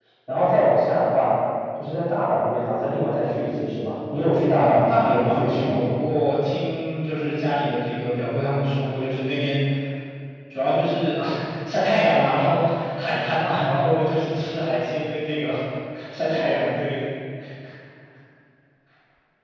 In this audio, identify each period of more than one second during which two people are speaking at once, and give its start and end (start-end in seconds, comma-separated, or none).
4.5-5.9